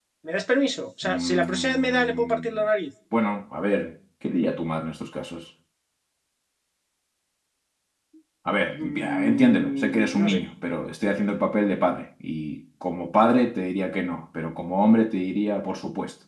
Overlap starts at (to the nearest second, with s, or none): 1 s